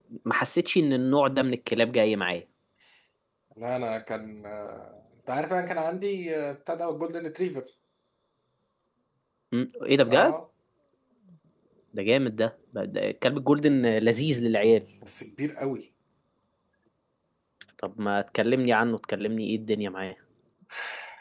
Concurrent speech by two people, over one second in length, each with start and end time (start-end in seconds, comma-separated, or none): none